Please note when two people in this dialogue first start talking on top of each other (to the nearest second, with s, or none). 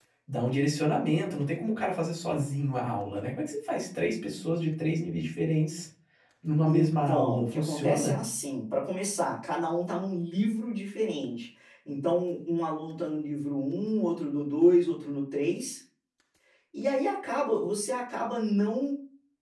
7 s